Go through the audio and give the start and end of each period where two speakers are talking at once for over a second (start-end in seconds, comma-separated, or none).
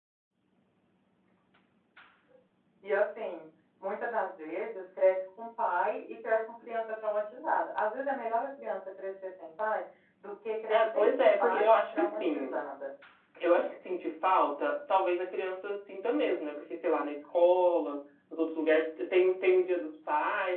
10.7-12.5